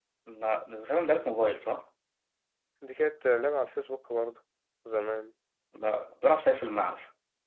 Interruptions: none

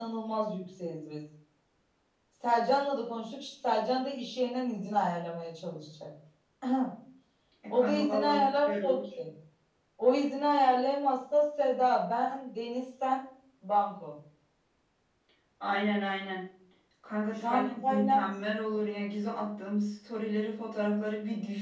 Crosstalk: present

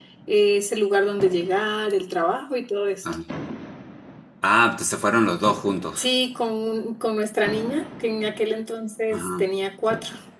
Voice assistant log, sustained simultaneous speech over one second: none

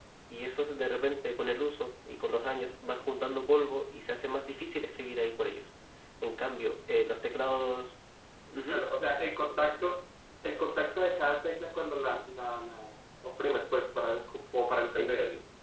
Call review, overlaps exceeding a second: none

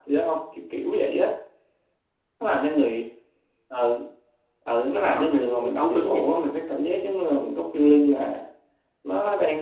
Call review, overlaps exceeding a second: present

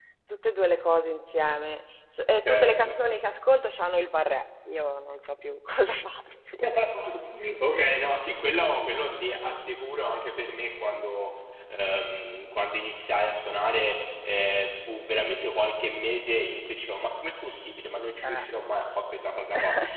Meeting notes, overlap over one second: none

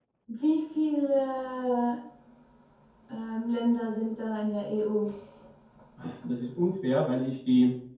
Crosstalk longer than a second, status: none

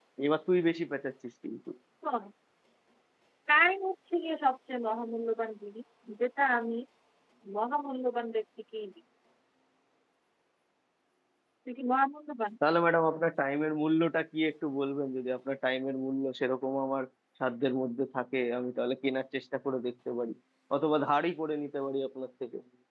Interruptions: none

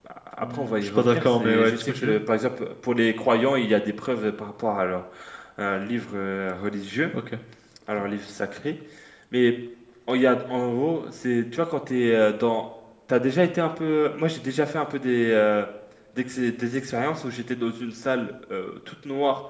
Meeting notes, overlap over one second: present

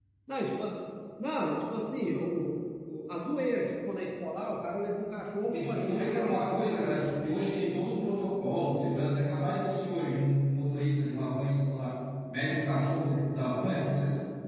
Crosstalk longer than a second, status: present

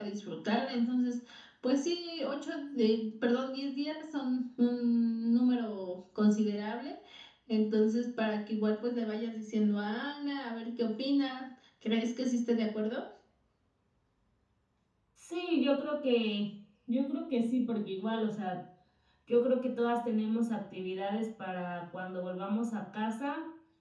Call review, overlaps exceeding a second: none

